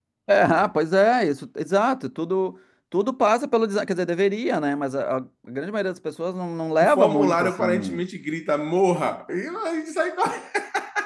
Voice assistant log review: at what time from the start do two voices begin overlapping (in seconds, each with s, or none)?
6.8 s